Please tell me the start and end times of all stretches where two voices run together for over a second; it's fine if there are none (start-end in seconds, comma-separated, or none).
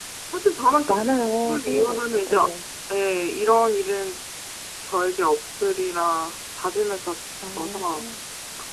0.9-2.4